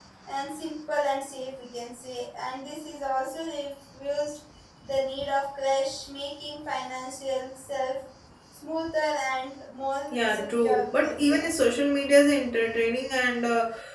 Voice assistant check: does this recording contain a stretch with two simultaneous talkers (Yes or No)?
Yes